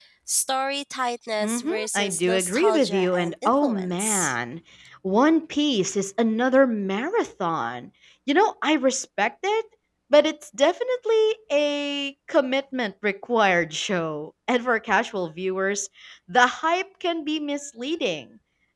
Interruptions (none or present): present